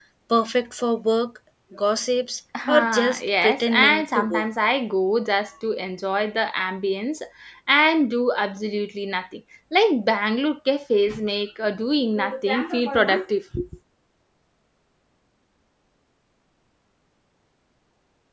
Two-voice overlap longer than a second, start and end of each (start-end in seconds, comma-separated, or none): 2.7-4.4